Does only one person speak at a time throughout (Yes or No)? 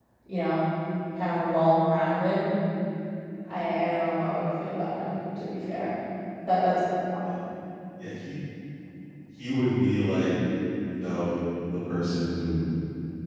Yes